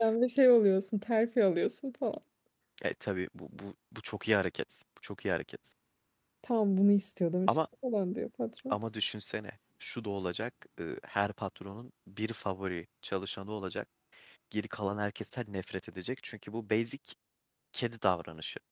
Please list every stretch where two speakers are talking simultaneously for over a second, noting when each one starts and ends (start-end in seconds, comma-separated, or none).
none